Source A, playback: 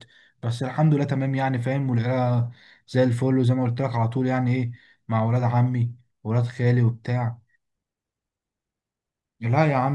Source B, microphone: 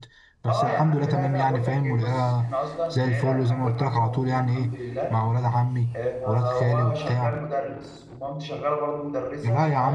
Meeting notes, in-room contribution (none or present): present